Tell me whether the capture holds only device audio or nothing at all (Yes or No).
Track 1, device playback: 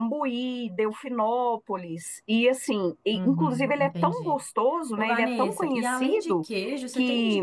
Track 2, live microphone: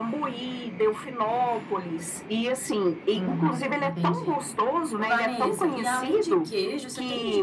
Yes